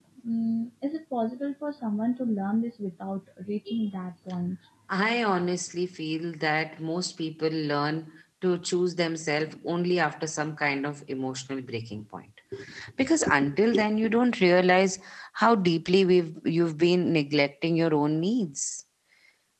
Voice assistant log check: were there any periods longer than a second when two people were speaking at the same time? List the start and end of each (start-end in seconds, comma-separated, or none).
none